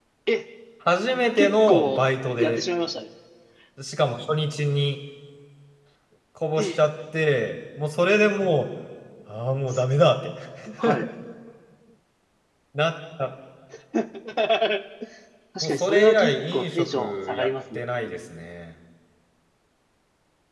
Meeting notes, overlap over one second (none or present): present